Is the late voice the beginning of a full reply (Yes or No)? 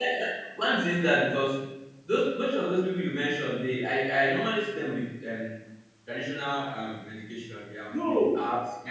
Yes